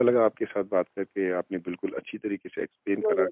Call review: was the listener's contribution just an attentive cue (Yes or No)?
Yes